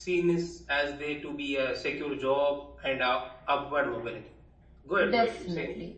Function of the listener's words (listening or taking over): taking over